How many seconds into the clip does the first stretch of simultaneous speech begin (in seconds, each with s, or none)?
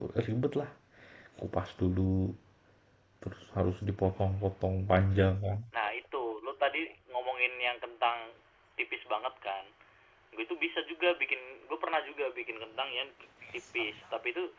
none